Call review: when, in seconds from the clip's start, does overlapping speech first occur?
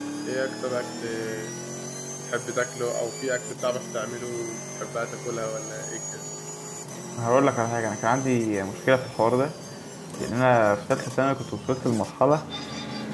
none

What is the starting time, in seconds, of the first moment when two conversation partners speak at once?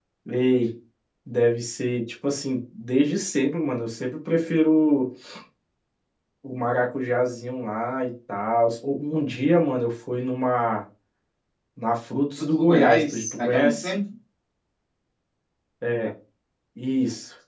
12.4 s

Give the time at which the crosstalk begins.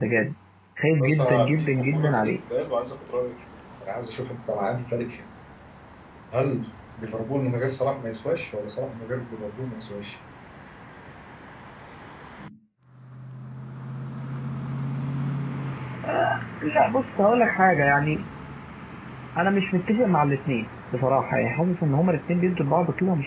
1.0 s

